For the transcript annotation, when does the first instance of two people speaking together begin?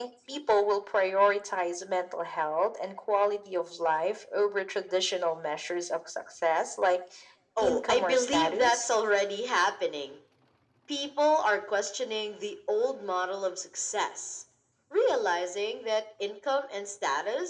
7.6 s

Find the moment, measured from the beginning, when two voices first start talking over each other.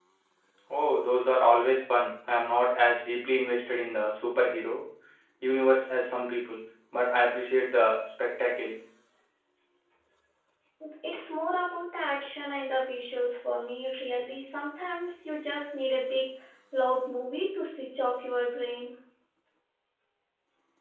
none

